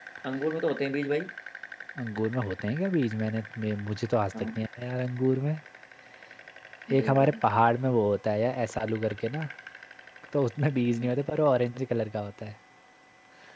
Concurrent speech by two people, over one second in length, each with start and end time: none

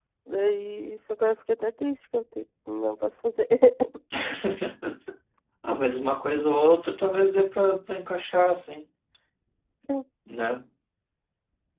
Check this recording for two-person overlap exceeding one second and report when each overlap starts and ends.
none

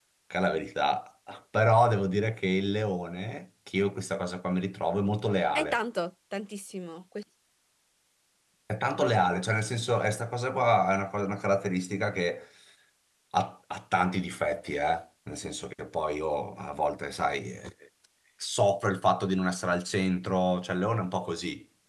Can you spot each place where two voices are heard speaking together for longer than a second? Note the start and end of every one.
none

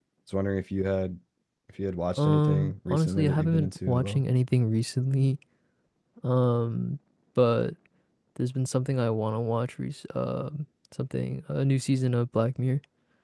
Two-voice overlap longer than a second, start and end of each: 2.2-4.2

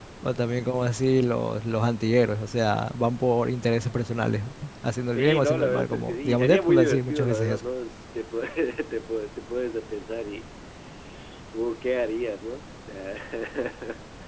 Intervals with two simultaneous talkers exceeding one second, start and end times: 5.1-7.6

